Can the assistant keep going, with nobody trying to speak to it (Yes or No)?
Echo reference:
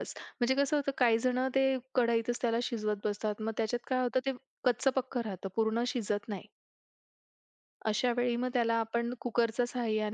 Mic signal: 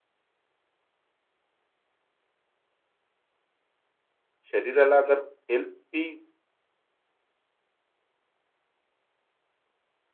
No